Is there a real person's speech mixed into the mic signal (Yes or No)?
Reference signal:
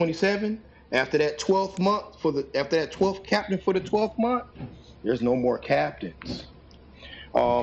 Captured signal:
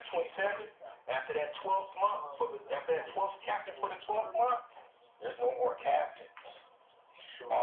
Yes